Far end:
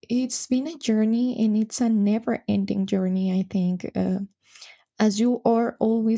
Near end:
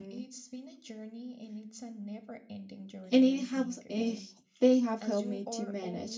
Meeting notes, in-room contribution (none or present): present